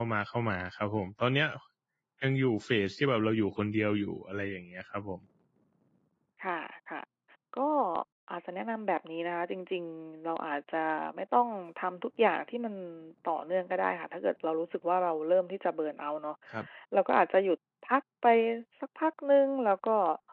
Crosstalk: none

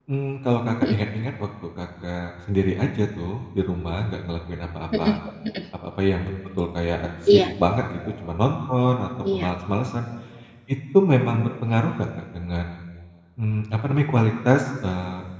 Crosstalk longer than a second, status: none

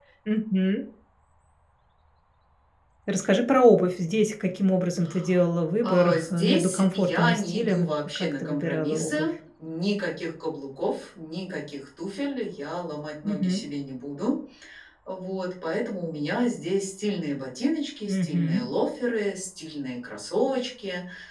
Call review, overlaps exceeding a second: present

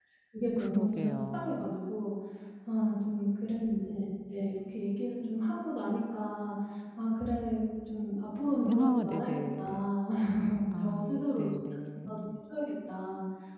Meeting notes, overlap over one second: present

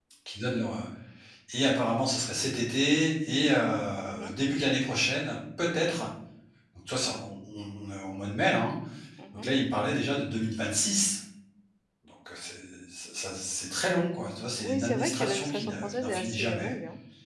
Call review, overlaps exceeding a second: present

